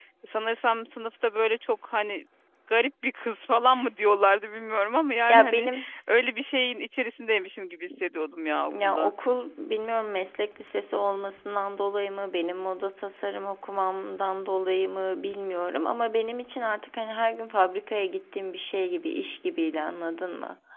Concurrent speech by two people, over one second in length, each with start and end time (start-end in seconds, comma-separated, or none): none